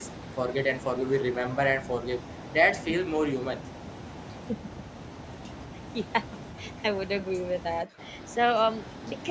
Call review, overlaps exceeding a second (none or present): none